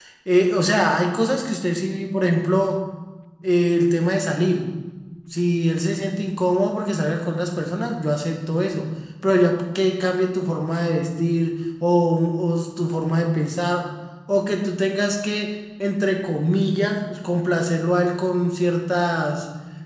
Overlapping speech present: No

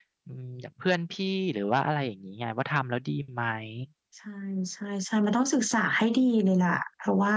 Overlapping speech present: No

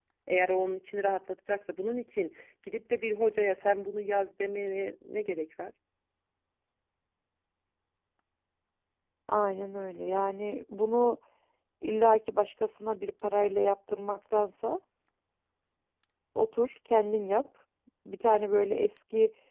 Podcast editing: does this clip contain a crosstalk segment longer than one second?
No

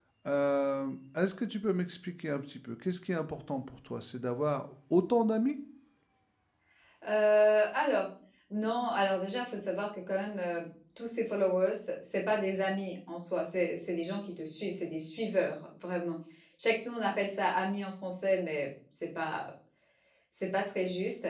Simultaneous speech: No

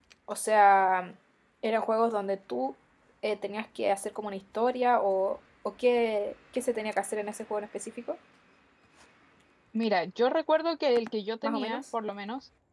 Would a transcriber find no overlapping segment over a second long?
Yes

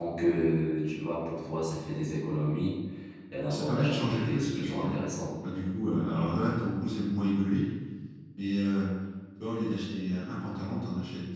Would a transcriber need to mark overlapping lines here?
Yes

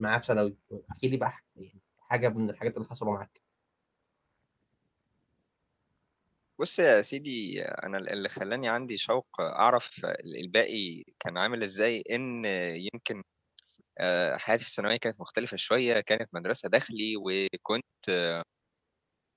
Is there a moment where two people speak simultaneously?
No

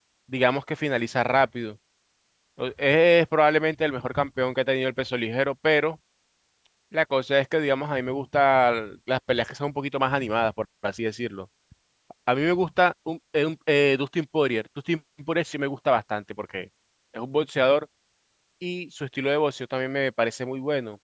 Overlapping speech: No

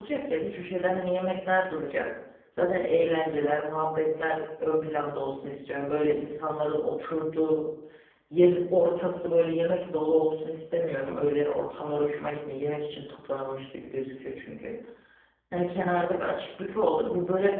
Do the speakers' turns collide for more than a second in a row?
No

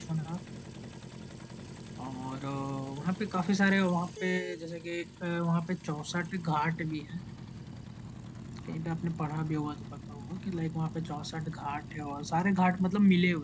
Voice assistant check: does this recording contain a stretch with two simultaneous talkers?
No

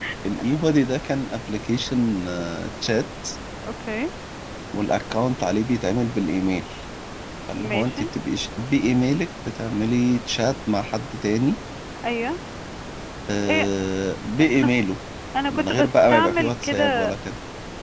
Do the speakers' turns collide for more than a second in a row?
Yes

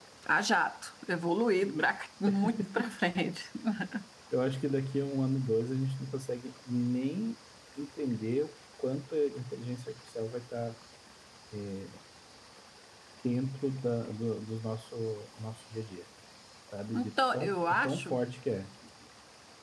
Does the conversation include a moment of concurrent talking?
Yes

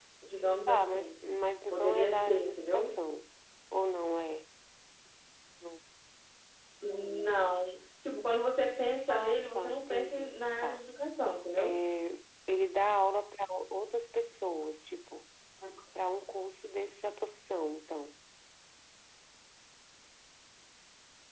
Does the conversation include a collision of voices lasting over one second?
Yes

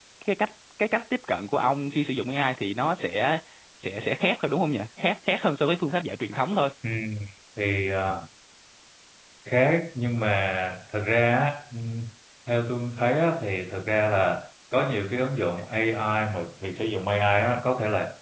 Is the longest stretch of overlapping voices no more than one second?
Yes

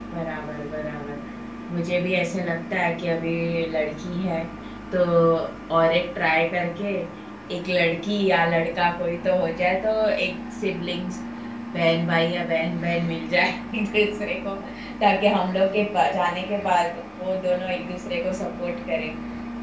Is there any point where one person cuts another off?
No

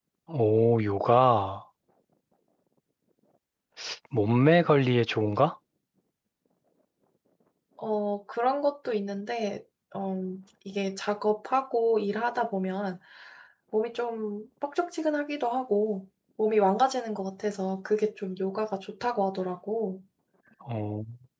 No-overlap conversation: Yes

